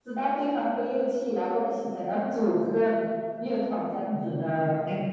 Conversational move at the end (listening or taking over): taking over